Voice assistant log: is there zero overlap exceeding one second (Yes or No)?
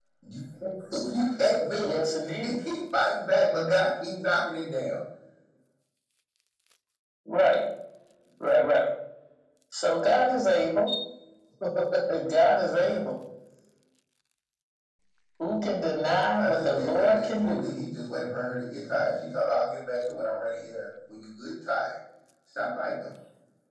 No